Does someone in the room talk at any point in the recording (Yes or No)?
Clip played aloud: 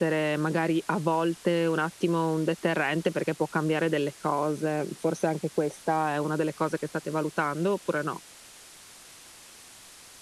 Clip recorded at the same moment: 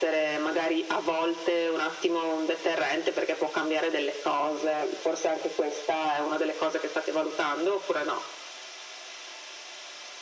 No